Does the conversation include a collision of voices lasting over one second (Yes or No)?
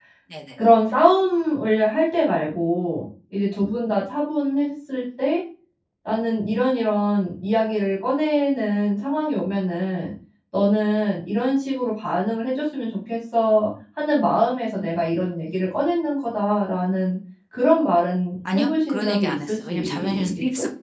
Yes